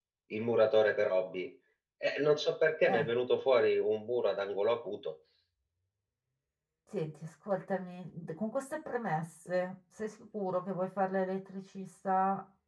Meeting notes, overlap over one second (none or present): none